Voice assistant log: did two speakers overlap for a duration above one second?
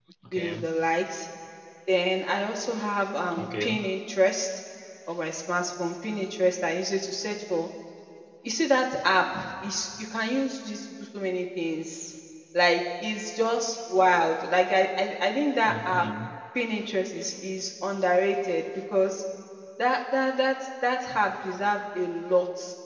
No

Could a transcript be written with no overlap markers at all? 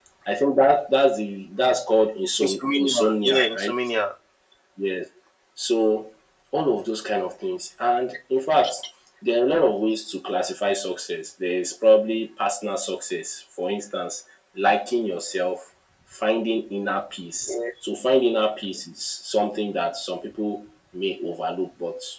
No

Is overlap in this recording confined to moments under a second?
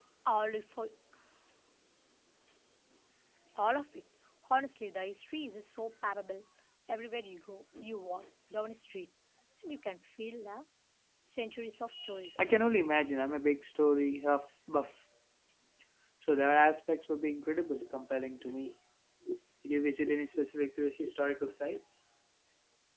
Yes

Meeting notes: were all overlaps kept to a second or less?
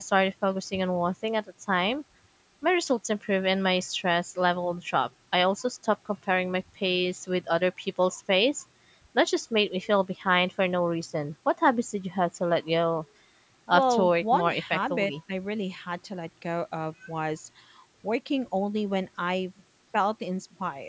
No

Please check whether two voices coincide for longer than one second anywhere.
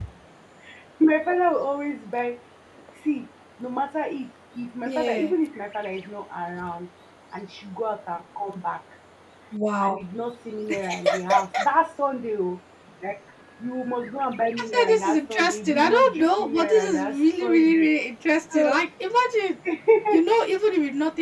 Yes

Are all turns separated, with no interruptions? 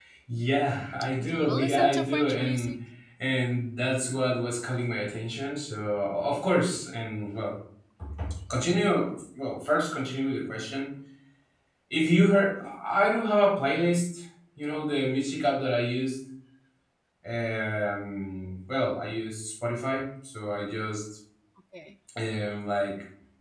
No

